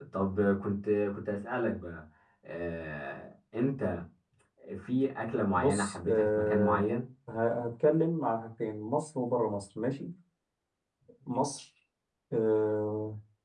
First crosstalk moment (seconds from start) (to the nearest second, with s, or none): 6 s